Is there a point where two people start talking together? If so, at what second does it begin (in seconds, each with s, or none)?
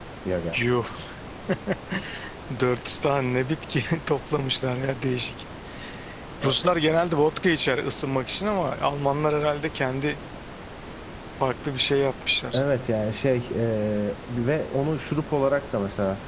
none